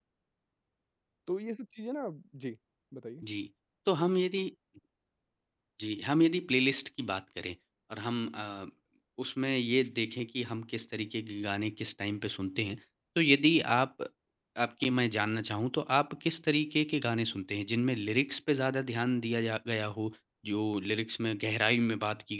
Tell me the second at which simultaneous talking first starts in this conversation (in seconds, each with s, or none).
none